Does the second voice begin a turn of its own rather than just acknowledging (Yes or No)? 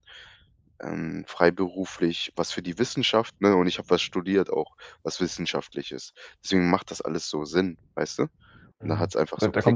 Yes